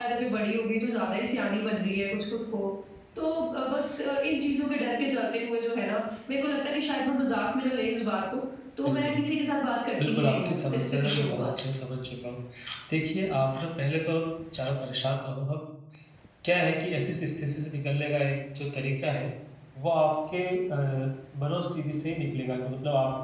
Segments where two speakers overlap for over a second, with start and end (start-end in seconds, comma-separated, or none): 10.0-11.5